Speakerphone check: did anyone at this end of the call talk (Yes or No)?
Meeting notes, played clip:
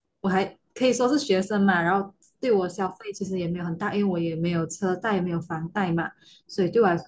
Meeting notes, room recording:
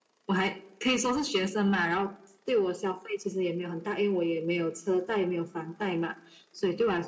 No